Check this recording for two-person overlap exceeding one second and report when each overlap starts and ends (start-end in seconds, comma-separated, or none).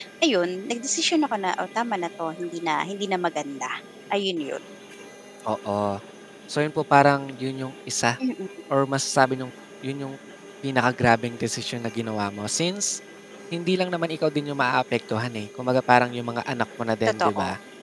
none